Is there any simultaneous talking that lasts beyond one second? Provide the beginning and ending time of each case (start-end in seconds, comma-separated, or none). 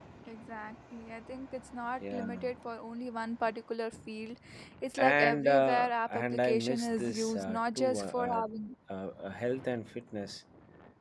5.0-8.4